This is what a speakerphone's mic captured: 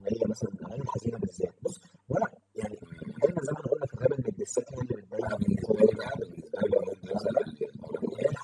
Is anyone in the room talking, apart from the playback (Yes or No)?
No